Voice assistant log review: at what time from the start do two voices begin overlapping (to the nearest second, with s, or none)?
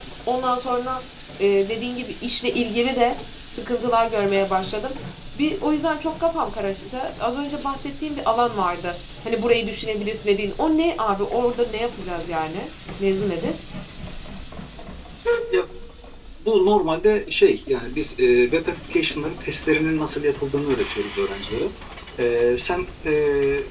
none